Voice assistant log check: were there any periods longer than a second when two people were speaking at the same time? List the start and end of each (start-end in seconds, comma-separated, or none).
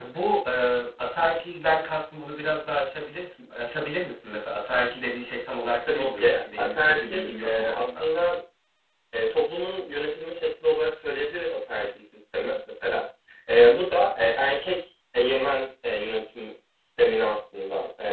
5.9-8.0